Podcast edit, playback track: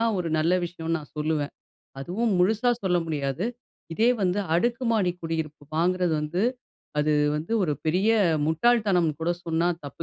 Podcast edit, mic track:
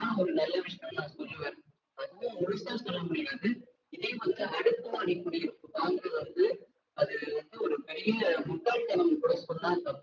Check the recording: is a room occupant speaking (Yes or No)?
No